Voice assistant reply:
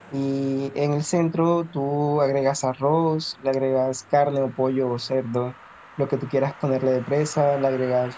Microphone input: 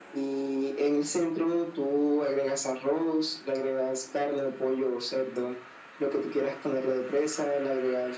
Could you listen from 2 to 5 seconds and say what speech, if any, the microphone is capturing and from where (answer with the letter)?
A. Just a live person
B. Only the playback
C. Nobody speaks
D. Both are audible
B